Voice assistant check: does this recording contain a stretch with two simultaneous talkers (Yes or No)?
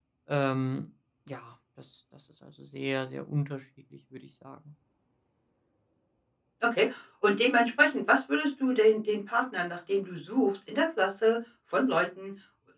No